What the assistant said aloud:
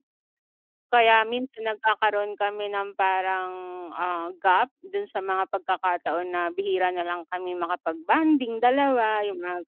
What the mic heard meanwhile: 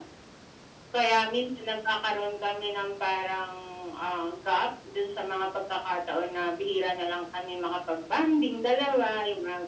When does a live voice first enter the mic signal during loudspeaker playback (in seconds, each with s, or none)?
none